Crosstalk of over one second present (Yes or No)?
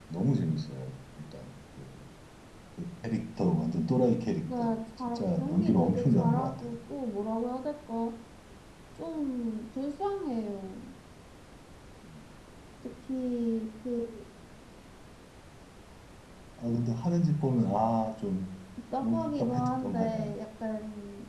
Yes